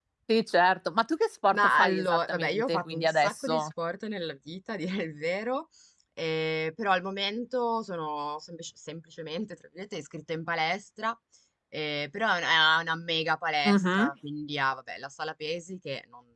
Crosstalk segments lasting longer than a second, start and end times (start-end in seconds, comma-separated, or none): 1.5-3.7